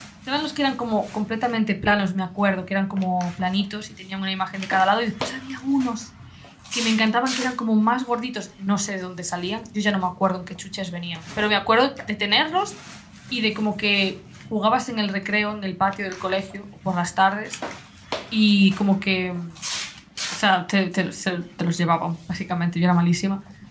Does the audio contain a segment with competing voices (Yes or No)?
No